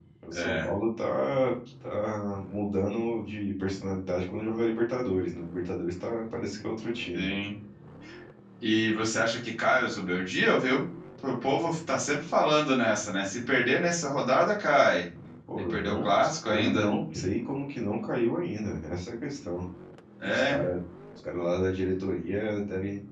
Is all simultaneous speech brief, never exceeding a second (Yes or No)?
Yes